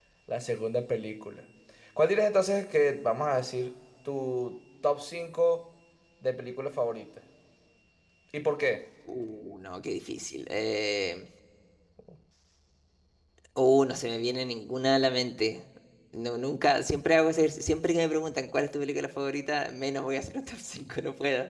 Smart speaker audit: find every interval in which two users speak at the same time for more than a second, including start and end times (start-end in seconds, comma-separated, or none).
none